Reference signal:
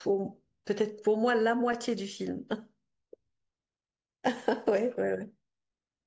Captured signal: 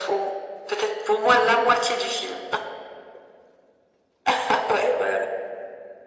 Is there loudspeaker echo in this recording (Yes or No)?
Yes